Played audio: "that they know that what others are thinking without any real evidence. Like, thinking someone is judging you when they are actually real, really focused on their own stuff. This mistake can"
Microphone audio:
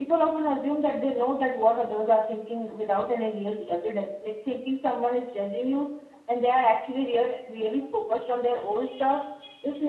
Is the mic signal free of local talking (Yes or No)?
Yes